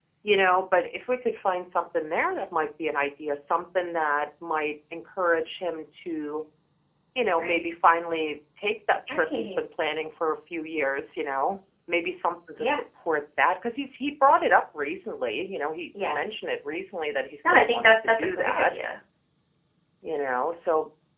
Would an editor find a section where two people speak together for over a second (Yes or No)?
Yes